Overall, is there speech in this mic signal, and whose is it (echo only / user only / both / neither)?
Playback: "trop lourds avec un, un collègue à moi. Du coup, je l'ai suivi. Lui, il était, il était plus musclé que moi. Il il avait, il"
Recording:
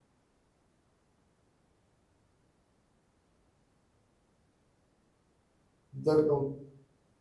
user only